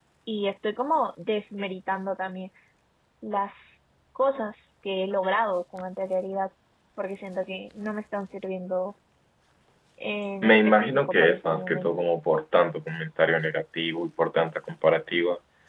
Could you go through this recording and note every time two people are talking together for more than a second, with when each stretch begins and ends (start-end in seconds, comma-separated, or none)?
10.4-11.9